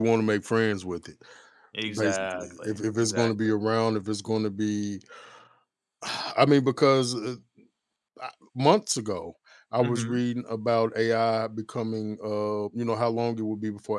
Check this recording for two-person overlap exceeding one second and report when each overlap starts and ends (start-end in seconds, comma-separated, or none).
2.0-3.3